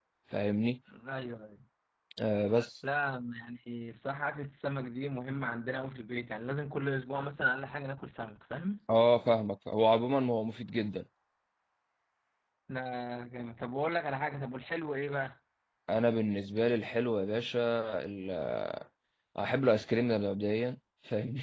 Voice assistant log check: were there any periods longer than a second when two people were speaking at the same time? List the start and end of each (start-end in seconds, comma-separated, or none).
none